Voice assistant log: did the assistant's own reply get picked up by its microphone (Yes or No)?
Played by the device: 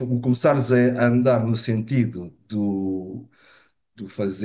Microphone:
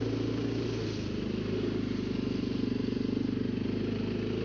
No